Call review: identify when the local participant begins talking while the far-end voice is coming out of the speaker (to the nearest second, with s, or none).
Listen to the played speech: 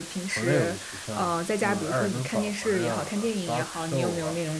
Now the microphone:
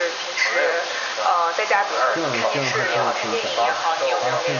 2 s